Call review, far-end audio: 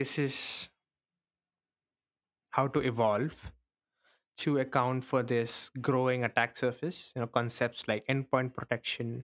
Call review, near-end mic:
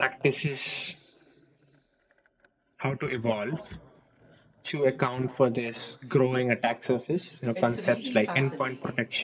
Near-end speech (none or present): present